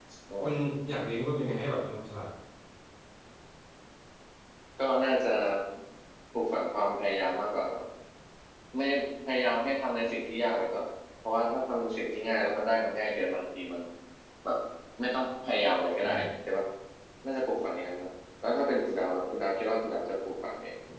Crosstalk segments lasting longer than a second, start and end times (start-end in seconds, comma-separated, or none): none